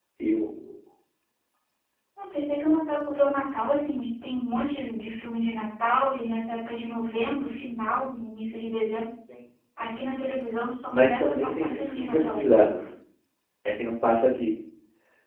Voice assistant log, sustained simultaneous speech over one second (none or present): present